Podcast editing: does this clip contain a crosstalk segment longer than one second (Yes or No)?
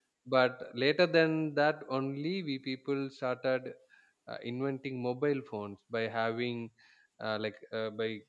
No